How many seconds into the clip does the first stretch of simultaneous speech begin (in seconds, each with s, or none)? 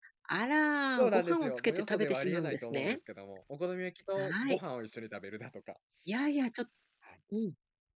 0.9 s